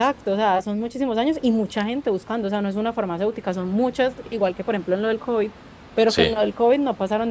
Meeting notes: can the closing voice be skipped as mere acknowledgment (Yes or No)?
Yes